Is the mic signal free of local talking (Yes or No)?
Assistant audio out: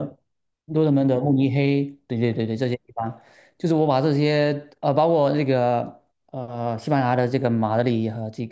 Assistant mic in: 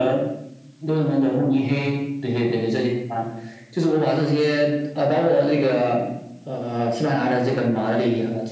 Yes